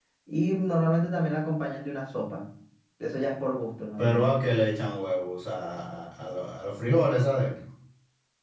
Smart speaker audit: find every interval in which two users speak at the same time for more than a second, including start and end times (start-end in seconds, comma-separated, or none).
none